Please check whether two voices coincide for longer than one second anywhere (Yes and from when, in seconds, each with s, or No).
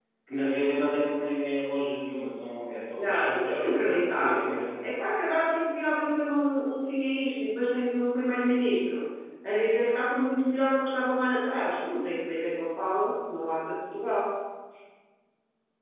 Yes, from 3.0 s